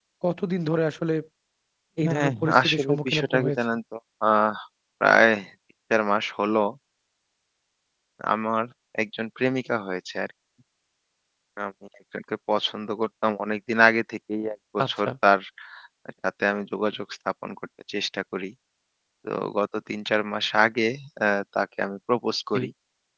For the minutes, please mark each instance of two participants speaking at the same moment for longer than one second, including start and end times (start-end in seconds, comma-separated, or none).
2.0-3.6